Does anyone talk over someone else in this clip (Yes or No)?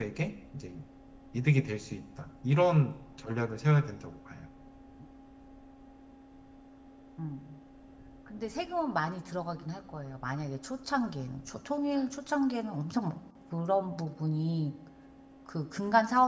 No